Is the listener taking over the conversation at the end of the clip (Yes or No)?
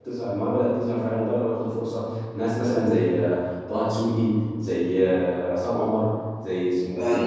Yes